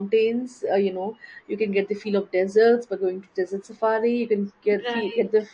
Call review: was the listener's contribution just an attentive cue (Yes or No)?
Yes